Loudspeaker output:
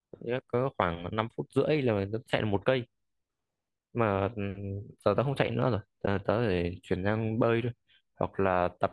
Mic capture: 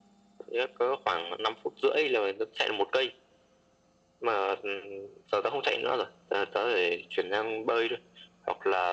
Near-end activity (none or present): none